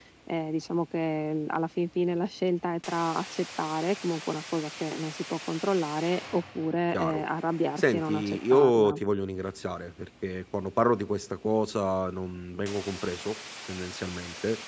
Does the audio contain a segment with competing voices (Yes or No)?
Yes